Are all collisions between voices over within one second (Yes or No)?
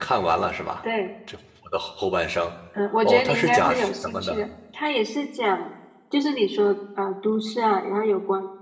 No